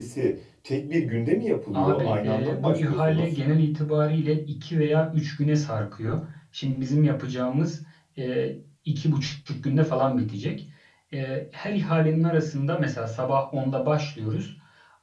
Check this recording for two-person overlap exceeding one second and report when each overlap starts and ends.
1.7-3.3

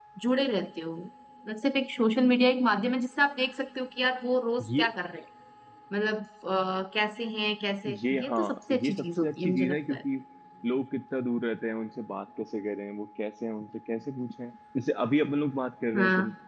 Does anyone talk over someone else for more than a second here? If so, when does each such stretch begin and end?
8.1-10.0

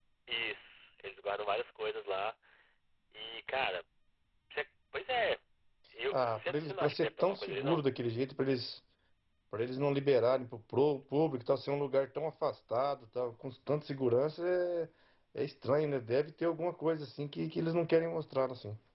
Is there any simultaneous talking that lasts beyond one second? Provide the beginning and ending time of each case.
6.1-7.8

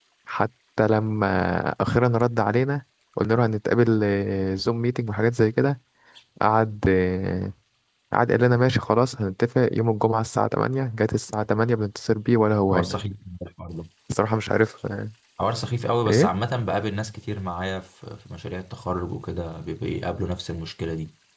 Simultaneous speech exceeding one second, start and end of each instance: none

